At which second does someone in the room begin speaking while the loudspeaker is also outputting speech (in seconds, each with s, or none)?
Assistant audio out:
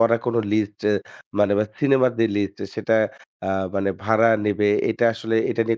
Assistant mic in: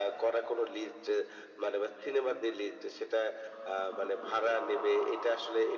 none